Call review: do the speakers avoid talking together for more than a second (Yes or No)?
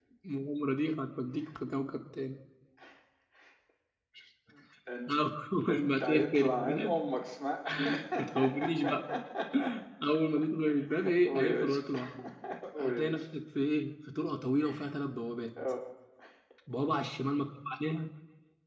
No